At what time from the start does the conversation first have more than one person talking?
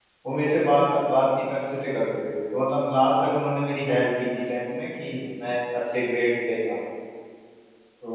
none

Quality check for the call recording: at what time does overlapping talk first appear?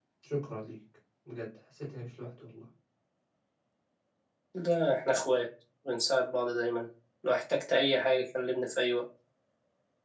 none

